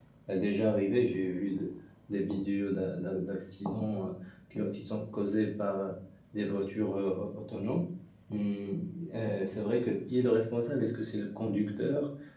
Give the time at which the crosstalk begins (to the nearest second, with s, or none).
none